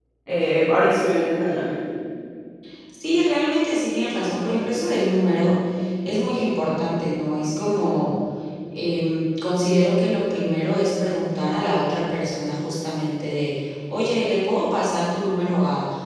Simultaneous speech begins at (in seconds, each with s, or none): none